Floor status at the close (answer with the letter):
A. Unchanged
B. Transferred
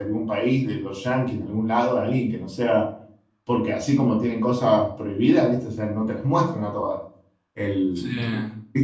A